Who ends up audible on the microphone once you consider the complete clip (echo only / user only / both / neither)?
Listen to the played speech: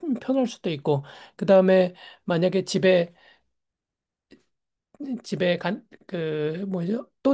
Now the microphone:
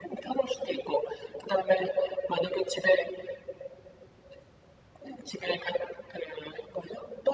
echo only